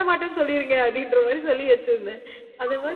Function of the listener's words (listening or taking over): listening